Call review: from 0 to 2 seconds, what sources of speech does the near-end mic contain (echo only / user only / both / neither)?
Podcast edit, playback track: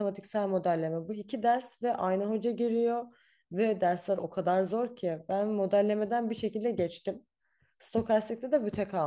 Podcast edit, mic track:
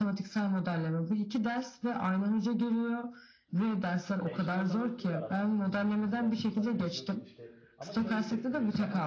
echo only